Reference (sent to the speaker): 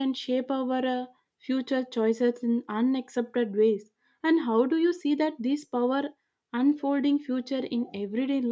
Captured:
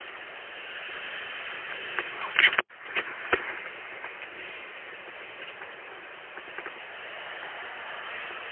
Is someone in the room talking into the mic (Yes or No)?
No